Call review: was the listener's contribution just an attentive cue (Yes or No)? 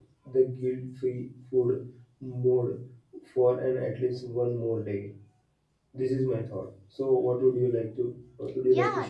No